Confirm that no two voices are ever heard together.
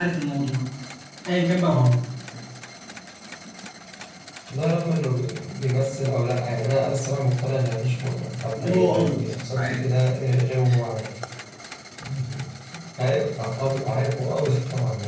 No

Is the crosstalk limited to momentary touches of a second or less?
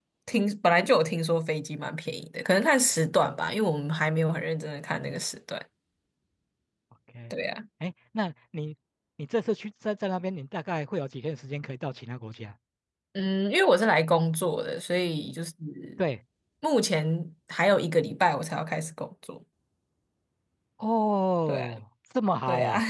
Yes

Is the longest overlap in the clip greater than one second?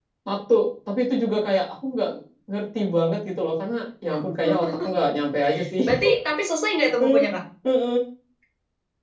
No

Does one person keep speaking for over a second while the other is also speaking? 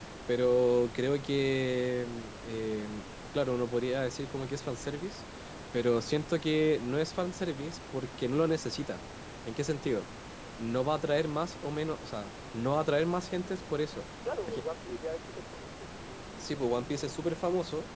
No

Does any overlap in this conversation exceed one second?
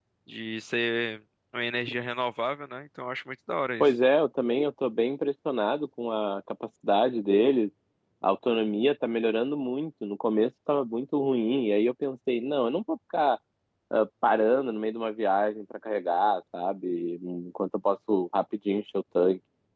No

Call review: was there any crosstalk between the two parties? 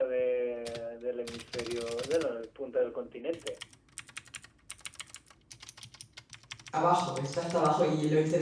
No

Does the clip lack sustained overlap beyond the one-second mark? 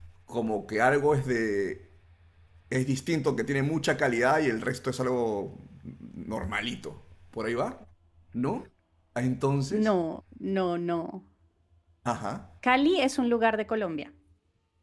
Yes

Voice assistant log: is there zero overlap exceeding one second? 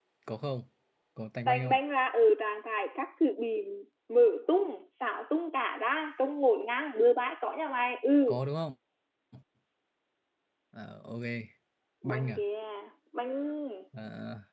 Yes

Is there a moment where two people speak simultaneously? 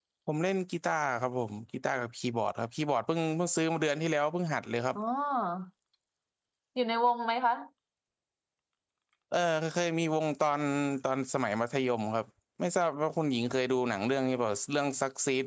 No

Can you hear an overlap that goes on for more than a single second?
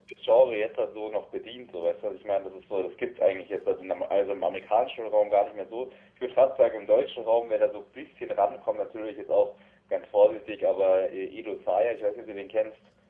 No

